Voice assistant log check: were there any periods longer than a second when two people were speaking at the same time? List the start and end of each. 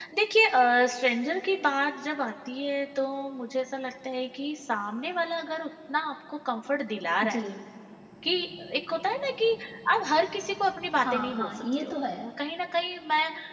11.0-12.3

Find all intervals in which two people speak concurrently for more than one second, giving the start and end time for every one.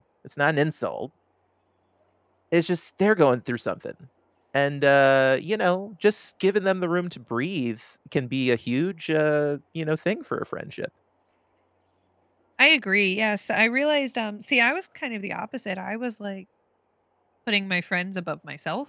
none

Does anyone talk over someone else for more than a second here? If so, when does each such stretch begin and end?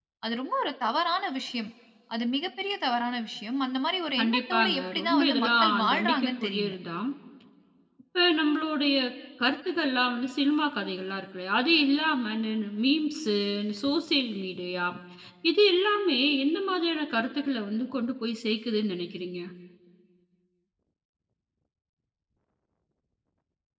4.2-6.7

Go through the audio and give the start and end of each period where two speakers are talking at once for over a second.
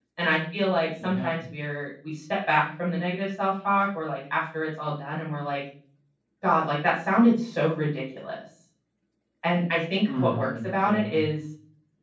10.0-11.2

